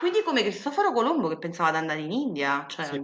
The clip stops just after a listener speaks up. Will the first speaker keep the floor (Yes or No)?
No